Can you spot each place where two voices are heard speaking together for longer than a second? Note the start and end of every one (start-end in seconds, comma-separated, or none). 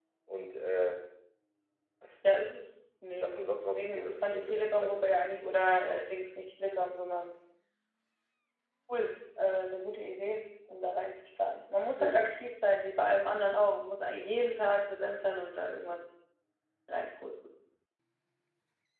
3.2-5.1